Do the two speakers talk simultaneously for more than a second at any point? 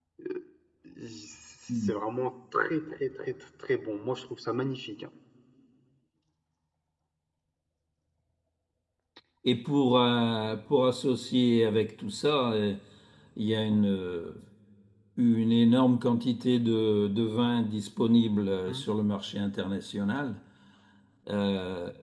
No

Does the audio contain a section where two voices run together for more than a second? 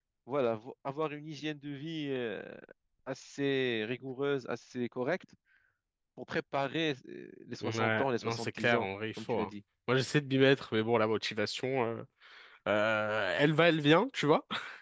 Yes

